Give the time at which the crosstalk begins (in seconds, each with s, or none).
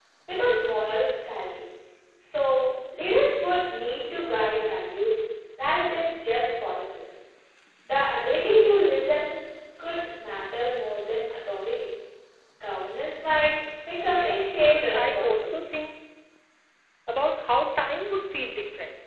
14.1 s